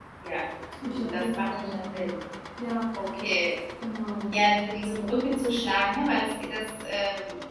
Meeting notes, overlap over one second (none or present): present